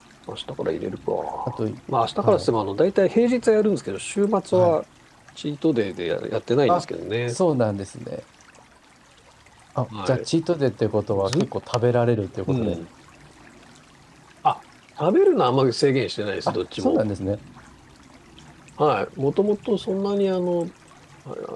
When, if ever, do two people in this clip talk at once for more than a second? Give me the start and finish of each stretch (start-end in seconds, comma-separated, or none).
none